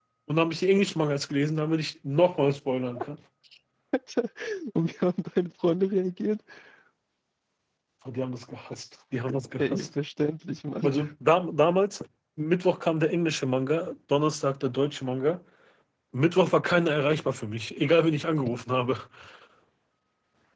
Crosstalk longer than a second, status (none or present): none